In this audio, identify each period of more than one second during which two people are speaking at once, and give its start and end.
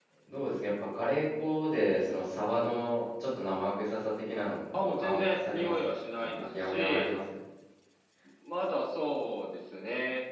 4.7-7.1

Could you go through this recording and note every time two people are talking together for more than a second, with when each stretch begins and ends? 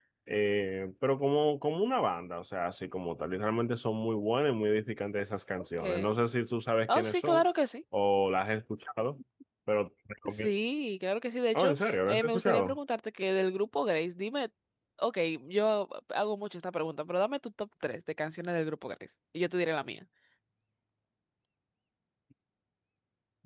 11.5-12.8

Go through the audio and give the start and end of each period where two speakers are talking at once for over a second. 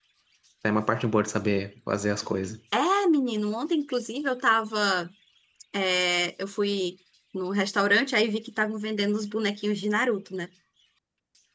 none

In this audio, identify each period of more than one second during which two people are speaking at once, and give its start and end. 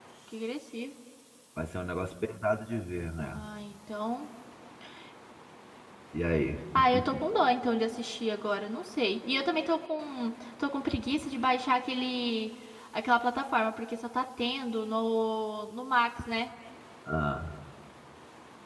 none

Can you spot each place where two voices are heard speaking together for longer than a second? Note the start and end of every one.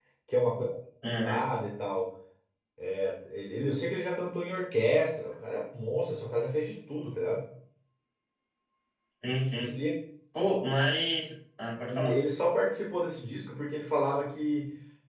none

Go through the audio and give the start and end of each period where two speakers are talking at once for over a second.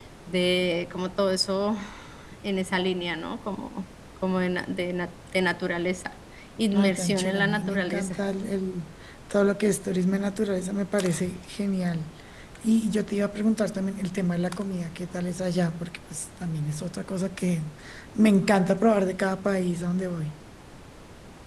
6.7-8.2

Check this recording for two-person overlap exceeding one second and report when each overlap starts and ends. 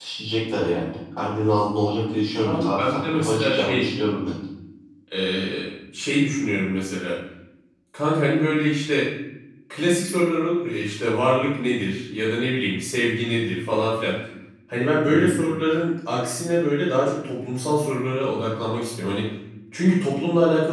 2.5-3.9

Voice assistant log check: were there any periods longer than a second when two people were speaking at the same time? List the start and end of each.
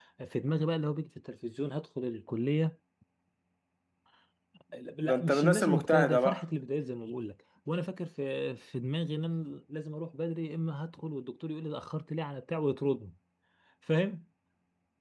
5.0-6.4

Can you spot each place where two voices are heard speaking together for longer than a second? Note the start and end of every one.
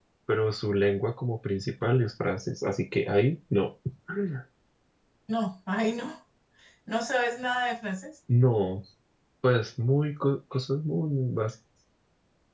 none

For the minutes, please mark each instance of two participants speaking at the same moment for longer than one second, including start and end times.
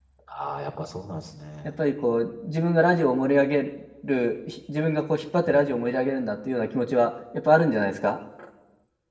none

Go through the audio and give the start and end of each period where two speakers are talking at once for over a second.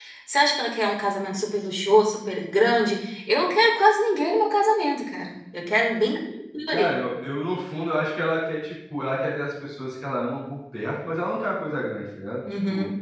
none

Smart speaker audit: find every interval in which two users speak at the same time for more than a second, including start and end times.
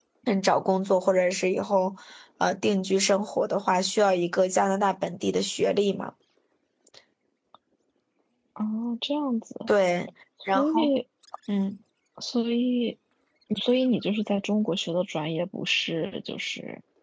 none

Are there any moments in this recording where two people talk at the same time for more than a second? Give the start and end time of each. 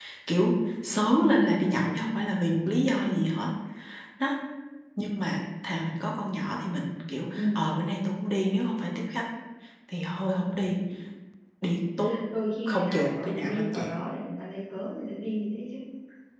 12.7-13.9

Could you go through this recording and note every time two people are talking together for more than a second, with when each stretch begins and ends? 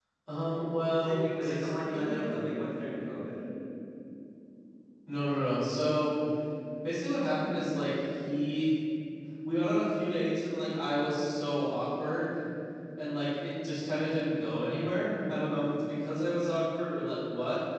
0.9-2.3

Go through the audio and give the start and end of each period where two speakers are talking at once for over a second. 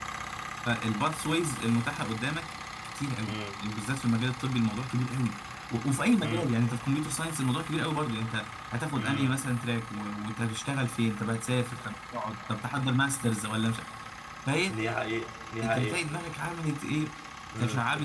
none

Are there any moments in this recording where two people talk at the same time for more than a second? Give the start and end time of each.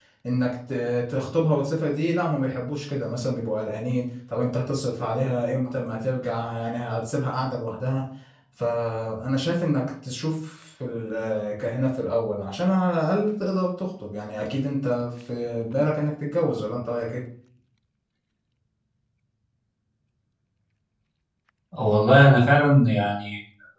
none

